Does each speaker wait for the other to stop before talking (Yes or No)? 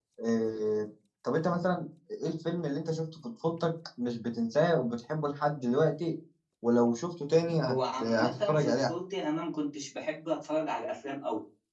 No